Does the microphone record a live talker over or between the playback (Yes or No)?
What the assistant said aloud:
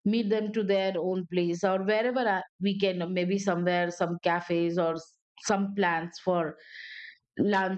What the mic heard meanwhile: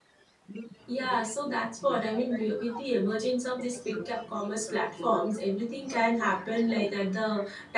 Yes